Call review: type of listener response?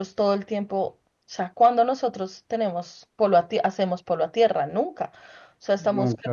listening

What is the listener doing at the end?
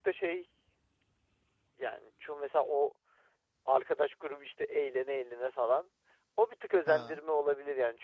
listening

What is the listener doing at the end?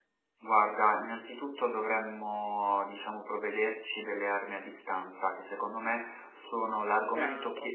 listening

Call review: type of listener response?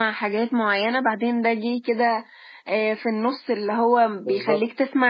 listening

